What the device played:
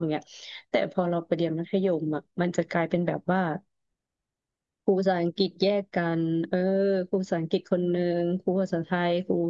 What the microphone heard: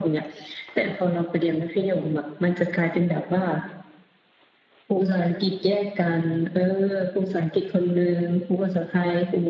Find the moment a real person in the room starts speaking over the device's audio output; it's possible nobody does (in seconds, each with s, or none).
none